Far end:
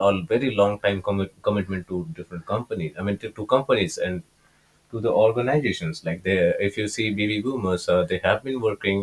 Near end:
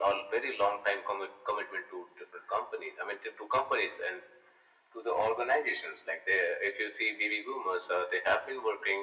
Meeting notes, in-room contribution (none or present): none